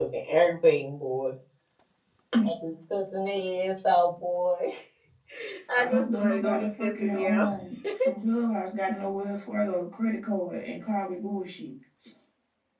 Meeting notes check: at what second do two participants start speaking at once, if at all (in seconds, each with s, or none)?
5.8 s